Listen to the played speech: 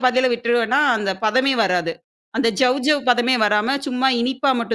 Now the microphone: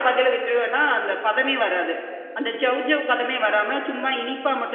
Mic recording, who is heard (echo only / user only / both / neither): echo only